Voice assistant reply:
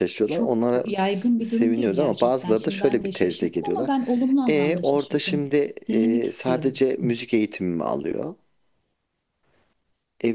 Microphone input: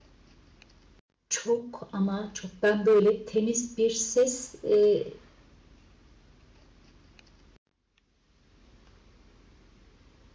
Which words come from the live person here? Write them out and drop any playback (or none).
Çok ama çok ben böyle temiz bir ses e,